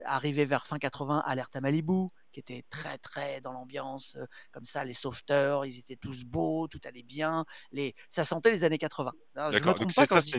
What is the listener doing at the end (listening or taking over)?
taking over